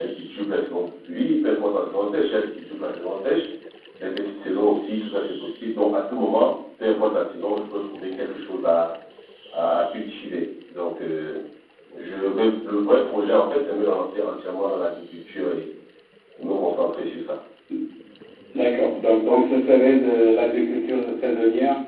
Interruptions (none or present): none